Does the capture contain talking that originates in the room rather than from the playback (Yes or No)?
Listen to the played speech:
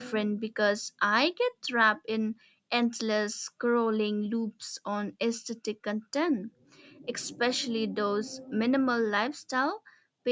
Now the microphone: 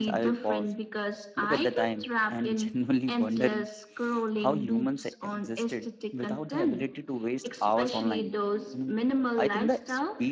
Yes